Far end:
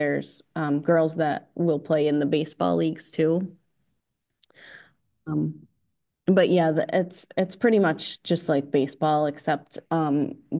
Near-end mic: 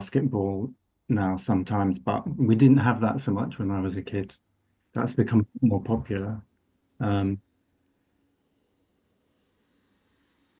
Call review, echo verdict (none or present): none